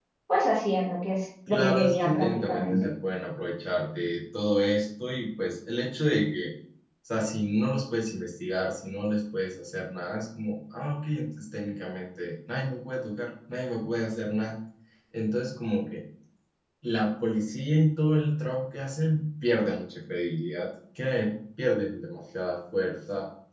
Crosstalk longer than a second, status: present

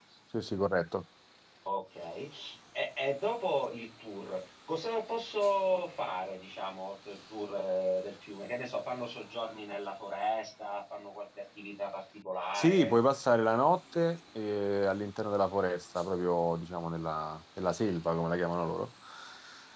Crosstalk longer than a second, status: none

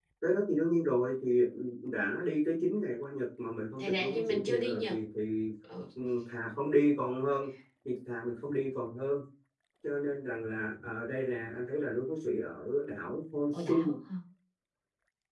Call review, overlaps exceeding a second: present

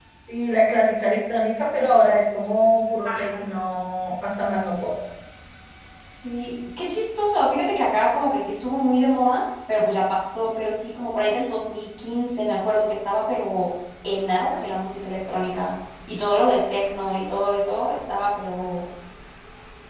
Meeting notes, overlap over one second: none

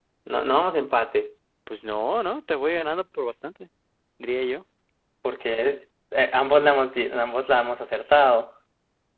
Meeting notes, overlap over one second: none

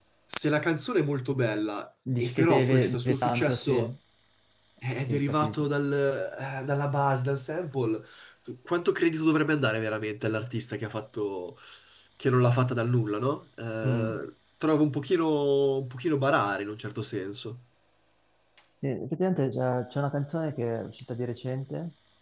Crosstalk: present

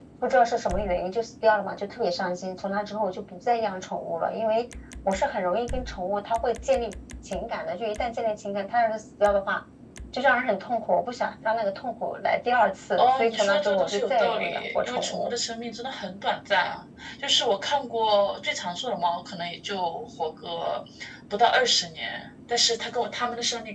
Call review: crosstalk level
present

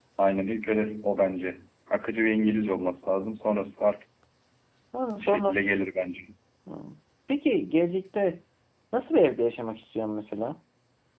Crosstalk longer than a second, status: none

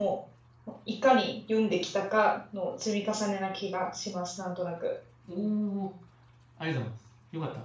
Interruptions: none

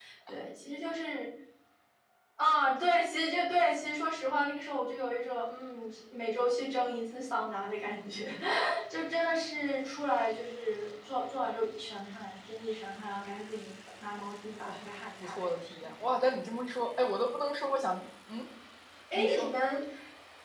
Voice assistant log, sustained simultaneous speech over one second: none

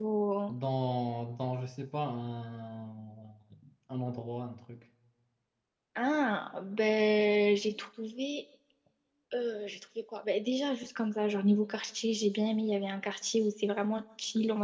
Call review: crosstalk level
none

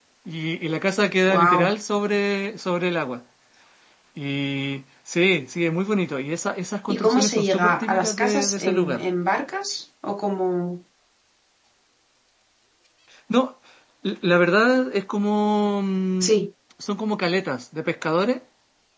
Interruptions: present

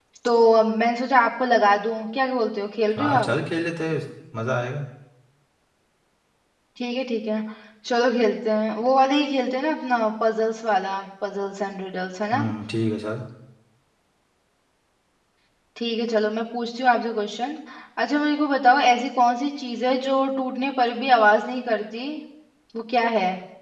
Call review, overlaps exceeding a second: none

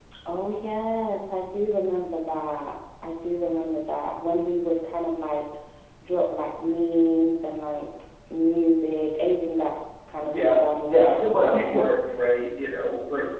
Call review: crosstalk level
present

